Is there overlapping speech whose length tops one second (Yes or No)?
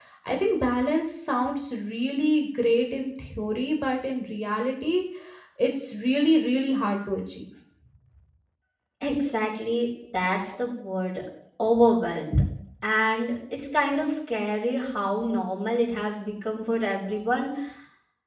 No